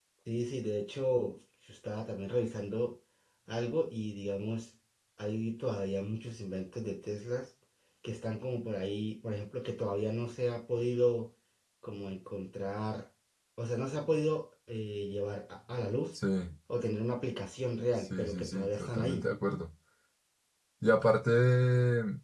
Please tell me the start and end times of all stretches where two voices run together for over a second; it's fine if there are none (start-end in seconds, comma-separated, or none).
18.0-19.2